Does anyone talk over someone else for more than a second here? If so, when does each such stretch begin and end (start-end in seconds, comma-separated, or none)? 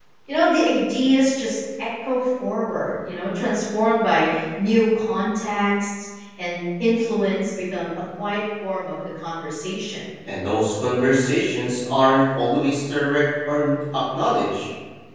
none